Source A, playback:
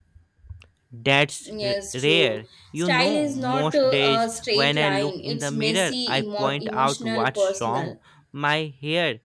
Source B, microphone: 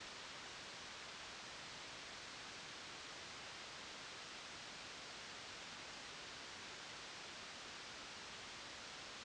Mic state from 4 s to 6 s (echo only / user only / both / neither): neither